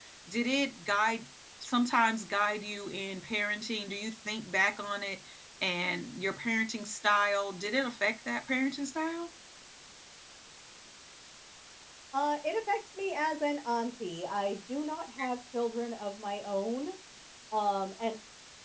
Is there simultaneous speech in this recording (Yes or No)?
No